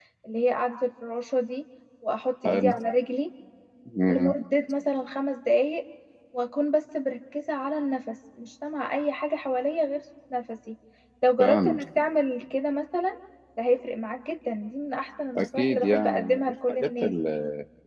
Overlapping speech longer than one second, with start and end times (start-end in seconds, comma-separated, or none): 15.4-17.1